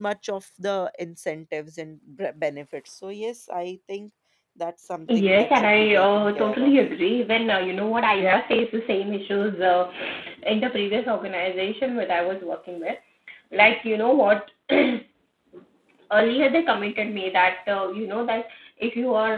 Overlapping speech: Yes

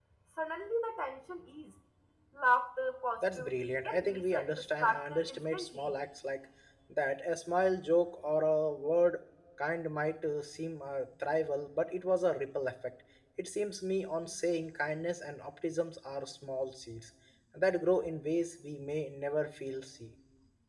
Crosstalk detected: Yes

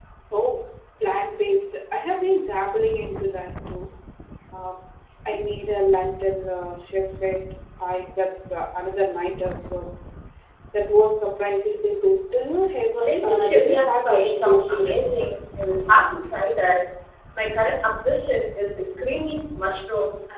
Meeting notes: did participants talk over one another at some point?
Yes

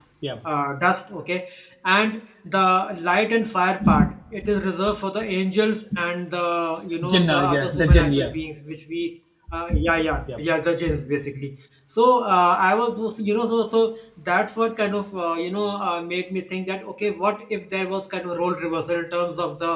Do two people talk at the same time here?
Yes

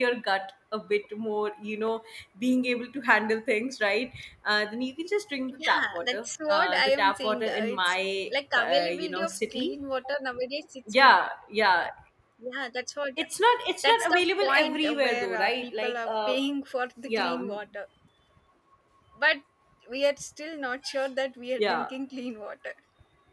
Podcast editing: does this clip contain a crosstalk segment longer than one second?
Yes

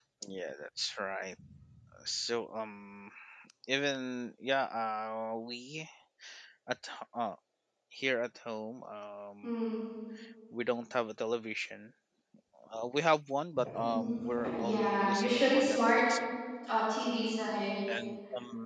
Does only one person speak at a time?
No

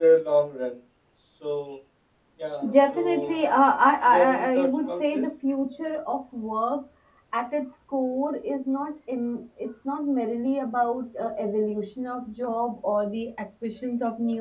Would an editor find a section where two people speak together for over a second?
Yes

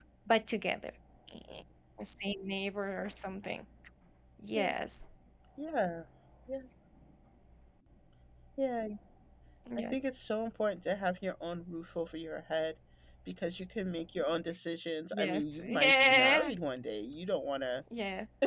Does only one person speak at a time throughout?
No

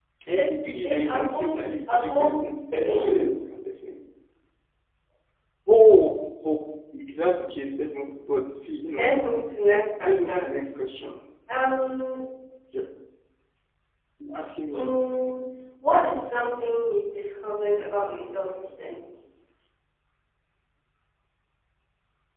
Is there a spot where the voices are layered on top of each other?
Yes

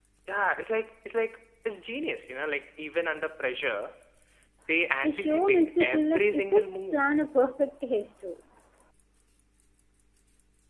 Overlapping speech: Yes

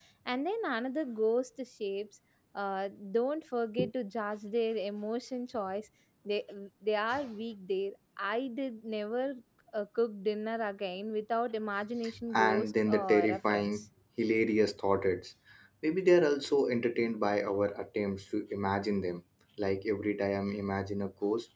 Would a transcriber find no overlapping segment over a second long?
No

